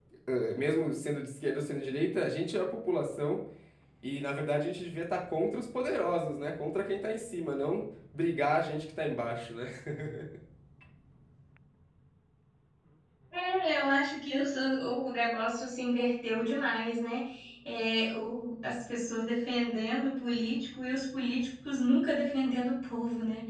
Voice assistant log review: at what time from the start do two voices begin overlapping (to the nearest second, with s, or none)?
none